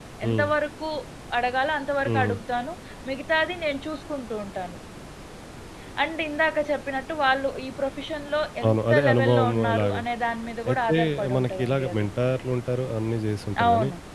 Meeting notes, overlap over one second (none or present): present